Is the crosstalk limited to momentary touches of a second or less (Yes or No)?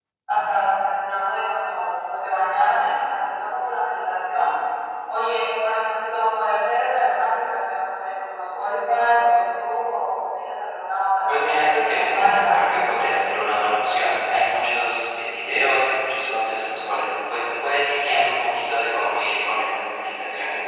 No